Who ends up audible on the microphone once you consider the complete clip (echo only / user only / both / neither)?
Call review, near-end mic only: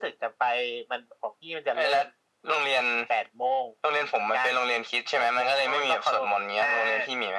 echo only